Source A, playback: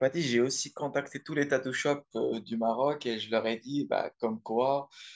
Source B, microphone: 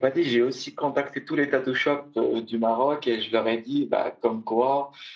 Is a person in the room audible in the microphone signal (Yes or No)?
No